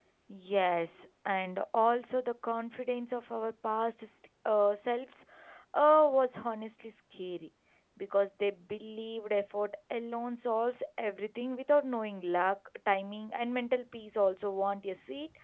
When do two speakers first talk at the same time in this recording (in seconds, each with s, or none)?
none